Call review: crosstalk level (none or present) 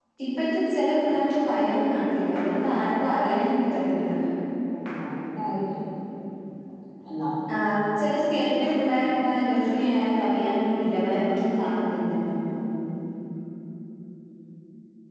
none